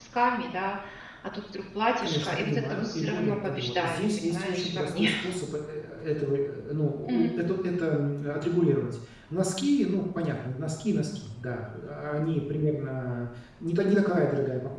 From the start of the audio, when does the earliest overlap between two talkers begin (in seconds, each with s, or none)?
2.0 s